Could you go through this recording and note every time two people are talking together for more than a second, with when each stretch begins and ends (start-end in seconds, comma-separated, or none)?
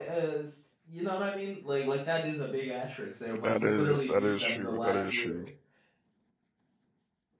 3.4-5.5